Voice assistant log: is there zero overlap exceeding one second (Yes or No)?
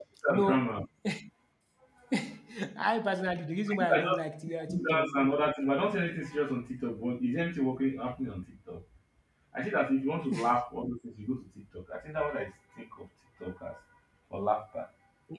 Yes